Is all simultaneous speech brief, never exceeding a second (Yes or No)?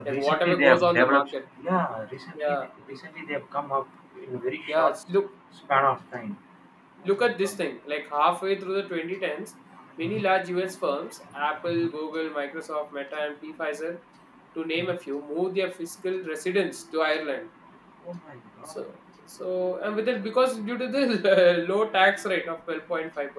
No